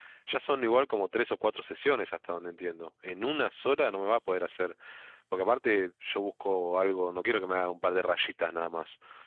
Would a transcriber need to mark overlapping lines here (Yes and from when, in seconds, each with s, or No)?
No